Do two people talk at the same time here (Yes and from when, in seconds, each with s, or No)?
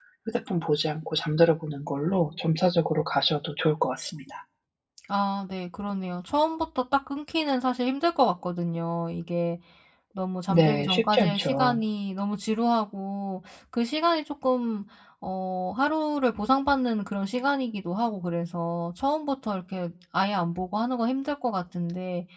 Yes, from 10.5 s